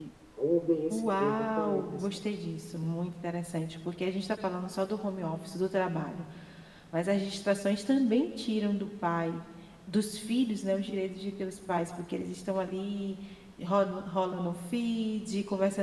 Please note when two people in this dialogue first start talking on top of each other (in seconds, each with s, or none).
0.9 s